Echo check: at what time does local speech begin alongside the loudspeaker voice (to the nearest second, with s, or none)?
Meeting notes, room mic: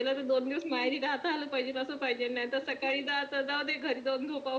none